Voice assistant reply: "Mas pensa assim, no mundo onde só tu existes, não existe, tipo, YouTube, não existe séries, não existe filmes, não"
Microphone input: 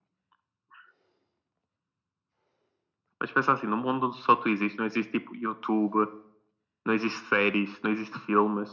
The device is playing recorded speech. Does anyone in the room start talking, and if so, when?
none

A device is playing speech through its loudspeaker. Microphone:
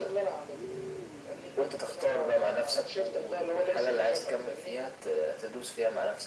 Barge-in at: none

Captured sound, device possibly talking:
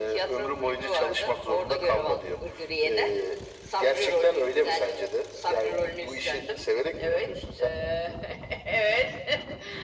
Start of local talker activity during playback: none

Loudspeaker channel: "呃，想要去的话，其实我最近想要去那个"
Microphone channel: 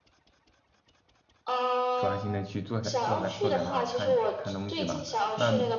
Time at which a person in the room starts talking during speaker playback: 1.9 s

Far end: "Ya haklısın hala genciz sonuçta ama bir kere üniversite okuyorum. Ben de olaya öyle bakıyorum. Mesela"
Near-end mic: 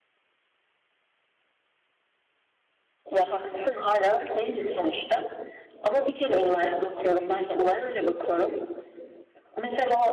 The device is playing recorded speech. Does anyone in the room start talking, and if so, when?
none

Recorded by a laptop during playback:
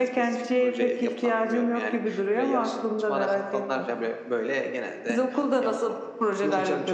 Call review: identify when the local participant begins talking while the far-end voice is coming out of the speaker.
none

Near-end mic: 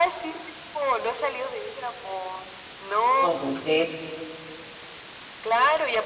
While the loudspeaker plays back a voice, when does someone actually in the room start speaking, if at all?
3.2 s

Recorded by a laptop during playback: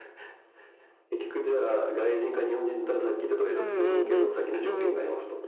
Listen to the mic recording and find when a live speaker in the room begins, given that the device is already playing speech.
3.5 s

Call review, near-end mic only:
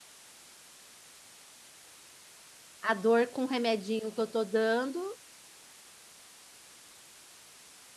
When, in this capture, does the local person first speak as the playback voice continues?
2.8 s

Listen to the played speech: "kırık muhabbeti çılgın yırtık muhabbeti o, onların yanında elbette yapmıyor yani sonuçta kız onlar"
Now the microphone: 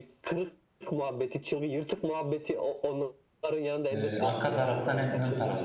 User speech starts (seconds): 4.0 s

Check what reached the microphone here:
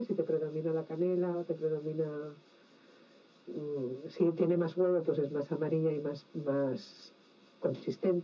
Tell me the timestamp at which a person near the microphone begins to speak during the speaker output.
none

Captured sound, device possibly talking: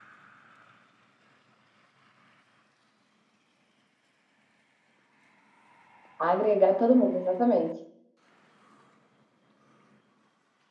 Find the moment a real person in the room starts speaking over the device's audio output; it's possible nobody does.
6.2 s

